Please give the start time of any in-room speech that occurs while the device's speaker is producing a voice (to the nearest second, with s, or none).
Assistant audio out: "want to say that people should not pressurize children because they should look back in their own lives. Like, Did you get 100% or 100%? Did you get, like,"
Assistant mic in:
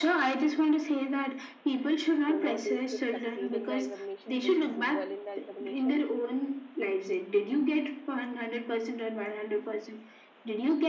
2 s